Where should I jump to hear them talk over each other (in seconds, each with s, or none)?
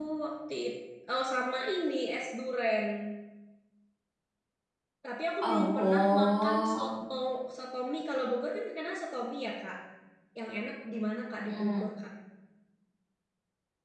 5.4 s